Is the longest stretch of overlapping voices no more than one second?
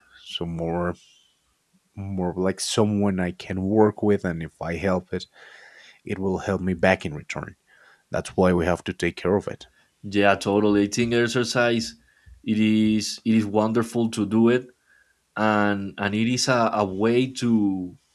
Yes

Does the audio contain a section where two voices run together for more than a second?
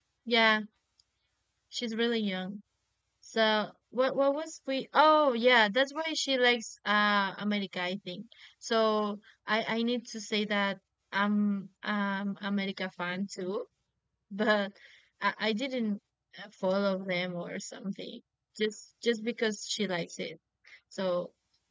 No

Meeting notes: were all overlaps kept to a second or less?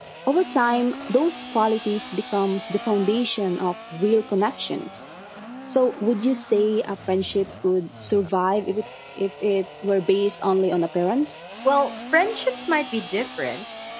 Yes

